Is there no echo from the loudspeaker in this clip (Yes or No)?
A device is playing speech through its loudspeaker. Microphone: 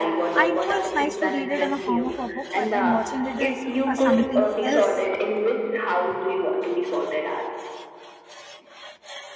No